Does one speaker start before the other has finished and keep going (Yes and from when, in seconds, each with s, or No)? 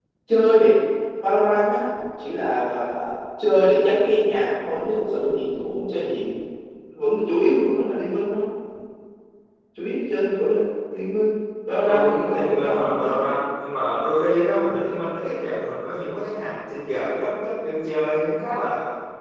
Yes, from 11.9 s